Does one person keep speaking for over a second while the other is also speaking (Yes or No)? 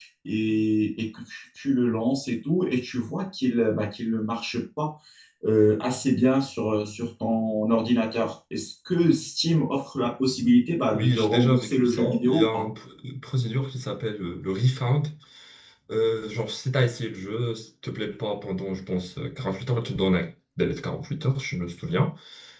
Yes